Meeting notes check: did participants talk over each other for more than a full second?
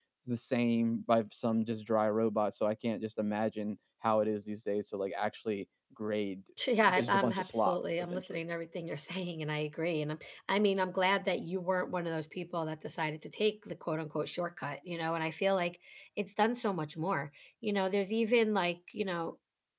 Yes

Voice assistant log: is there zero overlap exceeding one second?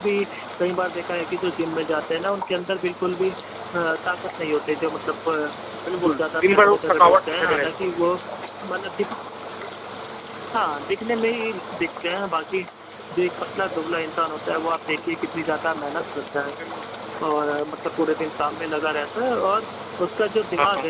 No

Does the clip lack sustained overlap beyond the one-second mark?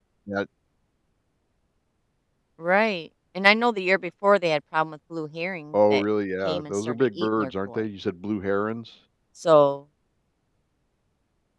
No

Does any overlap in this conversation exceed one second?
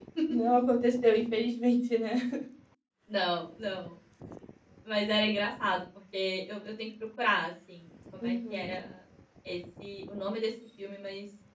No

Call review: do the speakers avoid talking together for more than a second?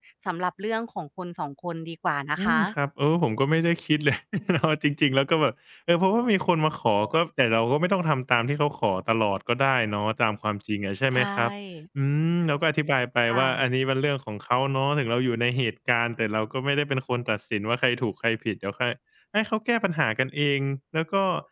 Yes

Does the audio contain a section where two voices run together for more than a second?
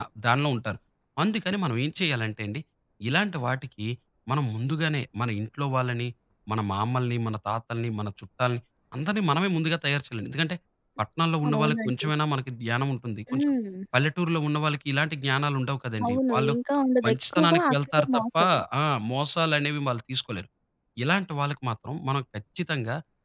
Yes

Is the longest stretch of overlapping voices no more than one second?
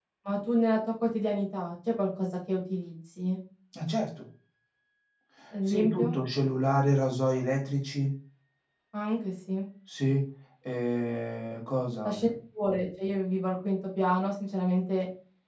Yes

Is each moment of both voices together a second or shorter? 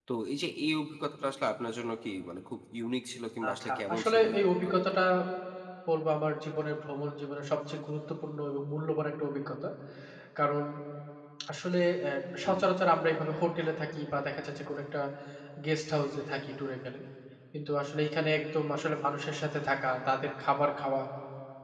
No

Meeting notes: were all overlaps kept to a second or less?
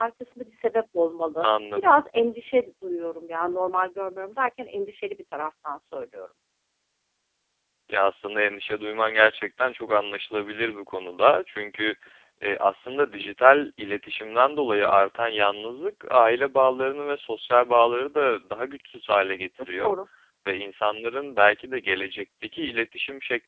Yes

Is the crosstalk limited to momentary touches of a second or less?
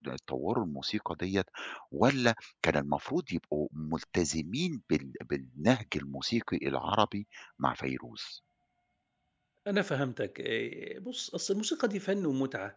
Yes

